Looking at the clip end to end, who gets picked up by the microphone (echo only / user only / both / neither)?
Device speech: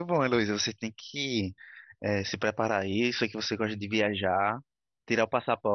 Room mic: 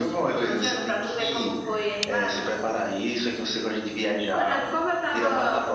both